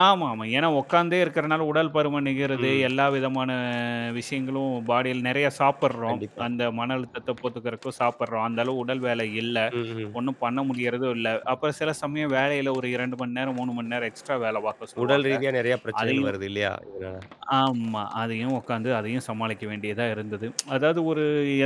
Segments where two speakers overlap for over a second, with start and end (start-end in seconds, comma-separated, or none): none